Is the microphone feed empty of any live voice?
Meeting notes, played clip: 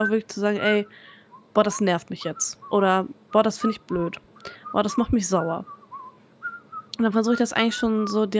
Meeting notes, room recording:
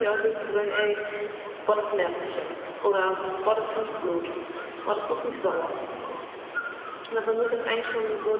Yes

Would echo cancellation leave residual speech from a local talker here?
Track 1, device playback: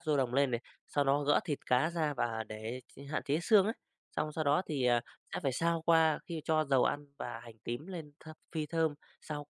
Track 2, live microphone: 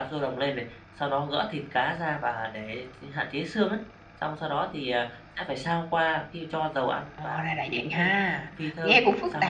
Yes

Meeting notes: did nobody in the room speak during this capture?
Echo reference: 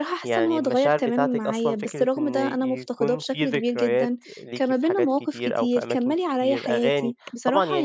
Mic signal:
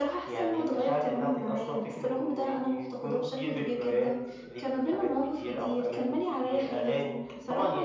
Yes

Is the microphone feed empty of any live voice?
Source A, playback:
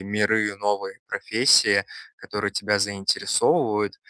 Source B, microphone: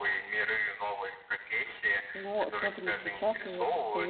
No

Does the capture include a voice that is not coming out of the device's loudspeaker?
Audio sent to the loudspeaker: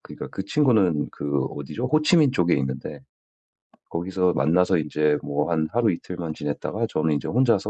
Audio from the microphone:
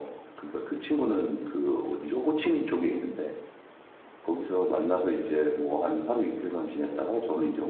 No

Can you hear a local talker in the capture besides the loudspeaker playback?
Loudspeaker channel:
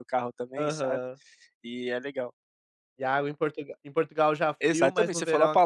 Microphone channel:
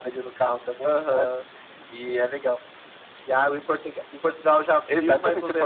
No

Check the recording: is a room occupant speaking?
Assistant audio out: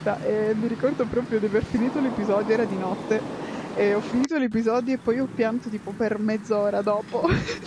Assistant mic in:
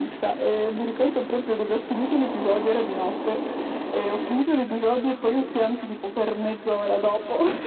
No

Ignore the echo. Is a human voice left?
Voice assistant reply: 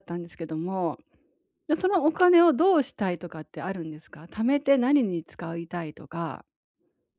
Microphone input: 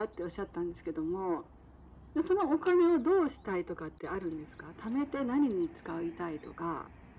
No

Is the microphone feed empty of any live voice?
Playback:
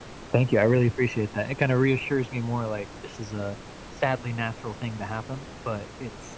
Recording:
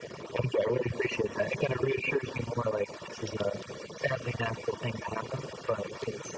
Yes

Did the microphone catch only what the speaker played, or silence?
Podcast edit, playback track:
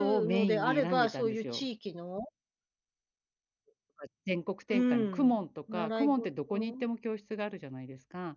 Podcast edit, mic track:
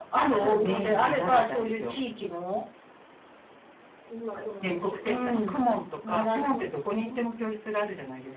No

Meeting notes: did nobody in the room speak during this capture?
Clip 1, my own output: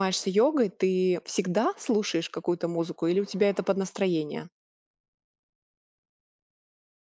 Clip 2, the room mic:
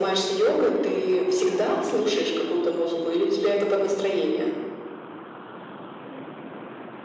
Yes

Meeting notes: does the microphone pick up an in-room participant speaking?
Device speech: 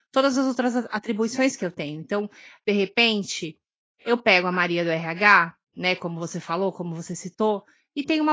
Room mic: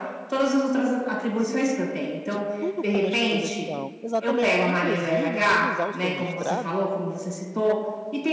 Yes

